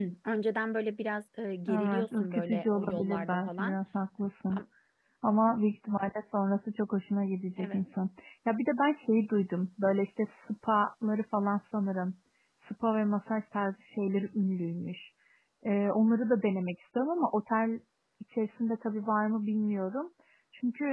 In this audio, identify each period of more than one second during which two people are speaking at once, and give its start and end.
1.7-3.8

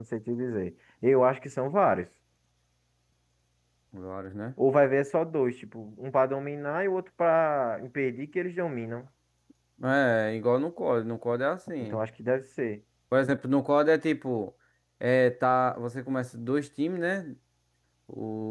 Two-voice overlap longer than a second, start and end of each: none

